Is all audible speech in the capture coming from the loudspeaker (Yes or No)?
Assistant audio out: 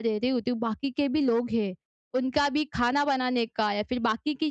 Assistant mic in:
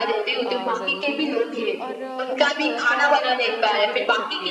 No